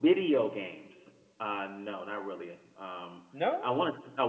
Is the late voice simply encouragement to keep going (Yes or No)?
Yes